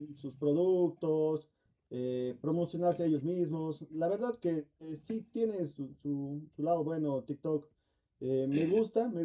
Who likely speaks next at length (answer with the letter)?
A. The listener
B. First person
B